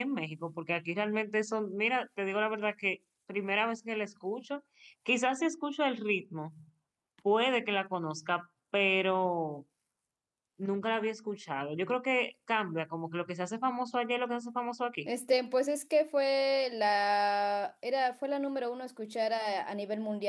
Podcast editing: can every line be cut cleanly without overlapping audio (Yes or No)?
Yes